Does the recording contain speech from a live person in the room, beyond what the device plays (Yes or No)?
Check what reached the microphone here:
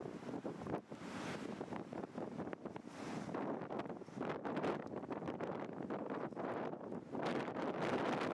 No